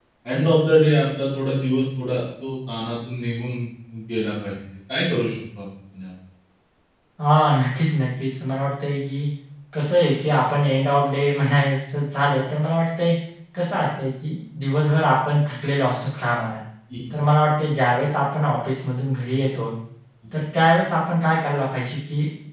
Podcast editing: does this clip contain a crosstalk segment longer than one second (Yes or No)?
No